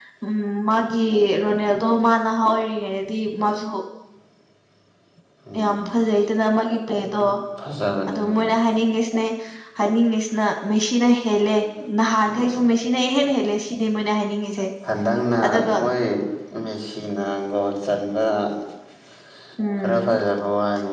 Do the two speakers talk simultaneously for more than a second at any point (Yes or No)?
No